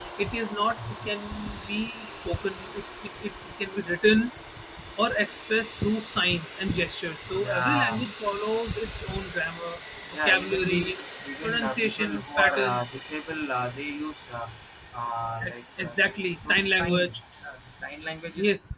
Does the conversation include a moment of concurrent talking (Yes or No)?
Yes